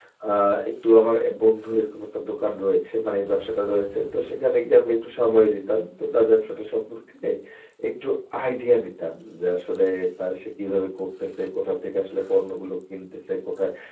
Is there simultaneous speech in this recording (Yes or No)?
No